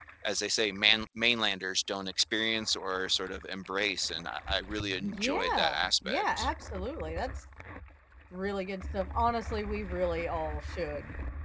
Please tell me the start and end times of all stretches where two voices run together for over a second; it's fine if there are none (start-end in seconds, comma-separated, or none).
5.0-6.5